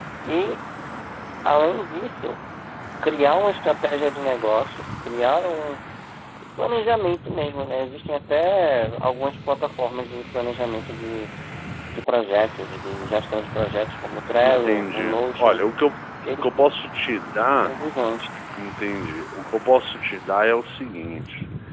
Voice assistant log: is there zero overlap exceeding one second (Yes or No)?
No